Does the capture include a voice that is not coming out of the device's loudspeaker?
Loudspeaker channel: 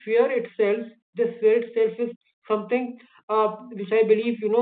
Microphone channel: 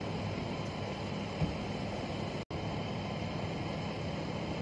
No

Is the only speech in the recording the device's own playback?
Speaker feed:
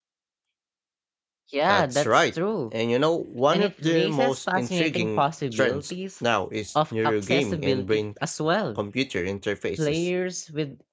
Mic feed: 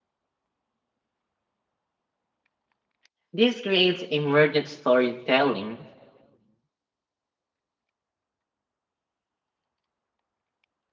No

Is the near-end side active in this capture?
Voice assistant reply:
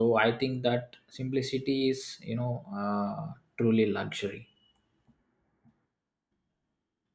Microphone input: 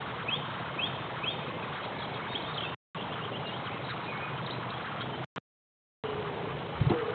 No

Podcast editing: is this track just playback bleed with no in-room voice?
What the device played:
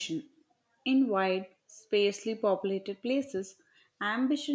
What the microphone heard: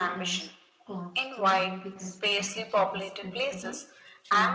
No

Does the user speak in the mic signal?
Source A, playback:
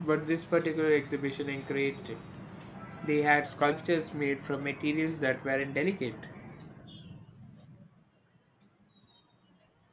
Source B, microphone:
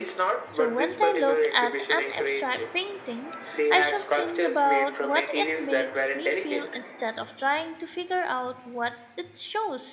Yes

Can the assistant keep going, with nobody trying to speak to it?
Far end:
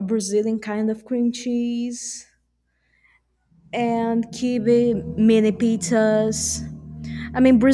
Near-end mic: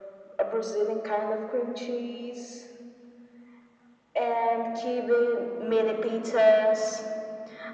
Yes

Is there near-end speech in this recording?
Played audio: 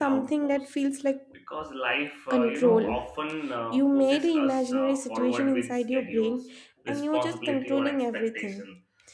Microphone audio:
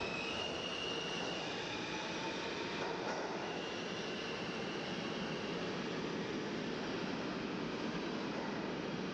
No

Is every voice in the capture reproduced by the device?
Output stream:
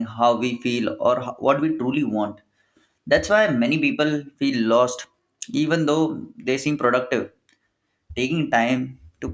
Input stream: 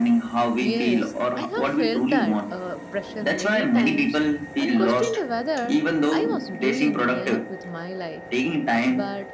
No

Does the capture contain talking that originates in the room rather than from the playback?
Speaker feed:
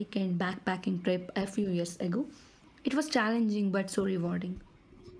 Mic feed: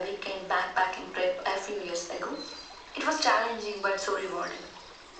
No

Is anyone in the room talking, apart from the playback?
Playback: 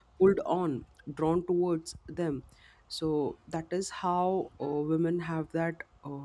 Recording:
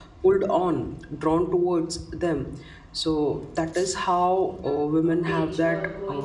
Yes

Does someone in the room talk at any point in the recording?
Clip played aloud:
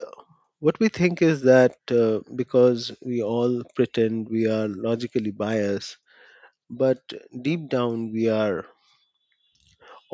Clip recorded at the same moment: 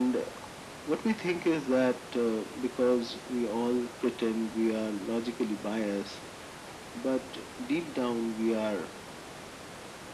No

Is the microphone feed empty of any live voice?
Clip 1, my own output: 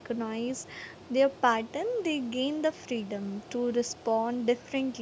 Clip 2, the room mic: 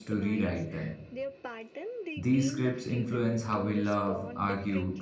No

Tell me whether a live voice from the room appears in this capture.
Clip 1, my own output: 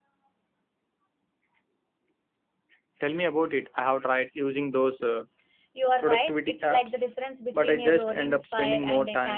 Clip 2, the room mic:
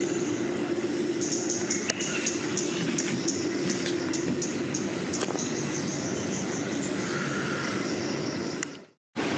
No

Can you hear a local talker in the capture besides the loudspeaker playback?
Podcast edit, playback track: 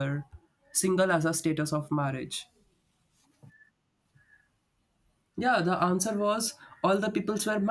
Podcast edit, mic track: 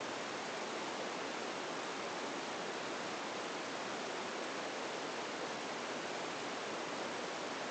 No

